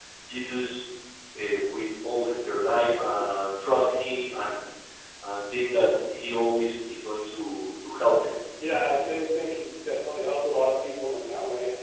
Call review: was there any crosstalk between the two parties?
No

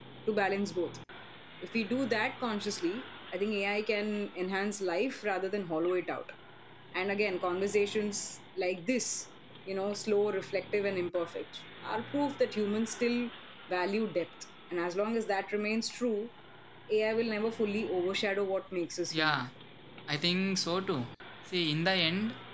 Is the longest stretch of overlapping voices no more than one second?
Yes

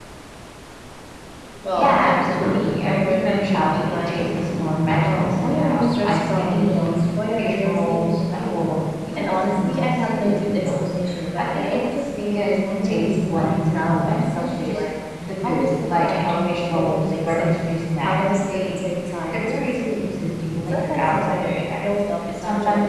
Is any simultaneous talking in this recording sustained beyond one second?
Yes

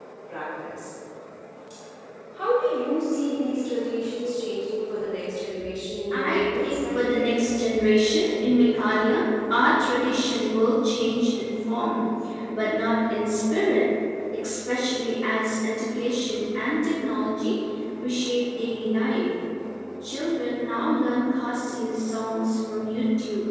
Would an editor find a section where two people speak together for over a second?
Yes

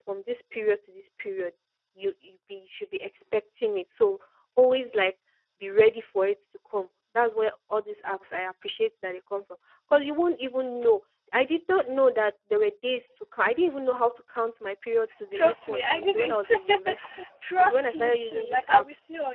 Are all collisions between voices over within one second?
No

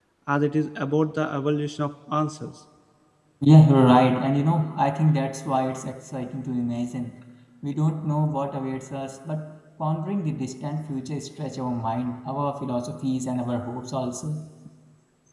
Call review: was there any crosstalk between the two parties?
No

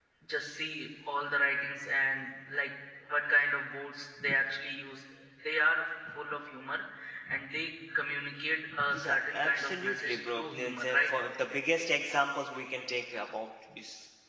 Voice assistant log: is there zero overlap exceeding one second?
No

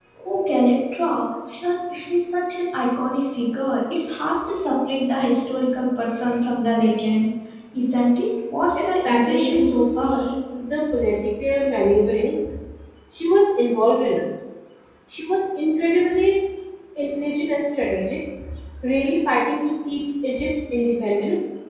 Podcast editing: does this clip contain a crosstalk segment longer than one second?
Yes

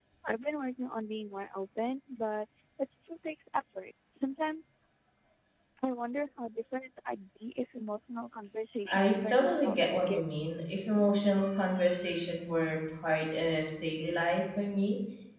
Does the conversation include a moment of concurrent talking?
Yes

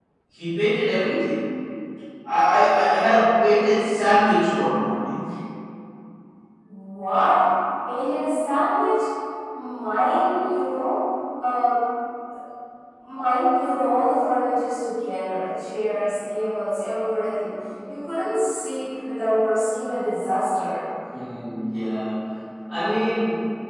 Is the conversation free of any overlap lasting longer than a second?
Yes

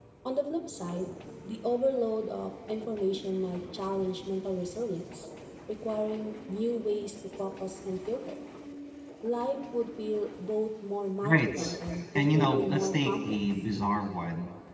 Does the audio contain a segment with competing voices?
Yes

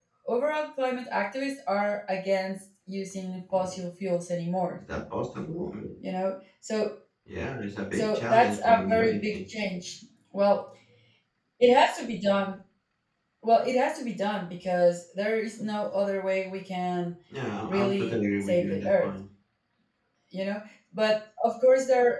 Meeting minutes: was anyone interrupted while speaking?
Yes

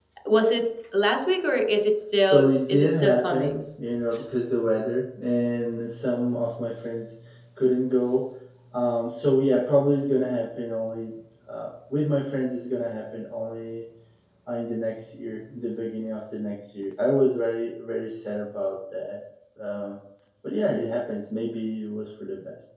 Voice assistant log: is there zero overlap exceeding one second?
No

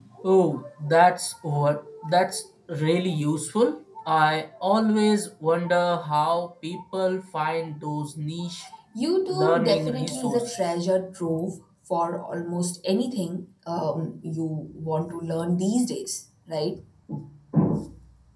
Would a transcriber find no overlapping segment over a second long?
No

